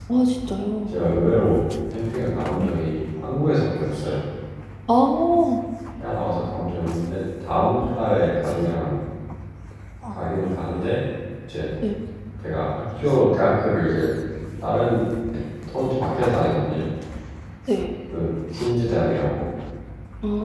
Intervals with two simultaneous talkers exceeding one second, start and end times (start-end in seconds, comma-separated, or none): none